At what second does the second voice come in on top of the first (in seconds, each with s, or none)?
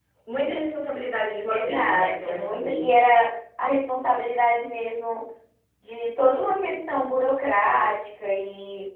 1.5 s